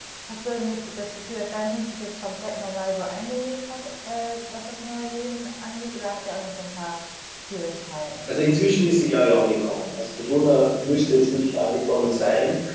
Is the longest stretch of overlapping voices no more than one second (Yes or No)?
Yes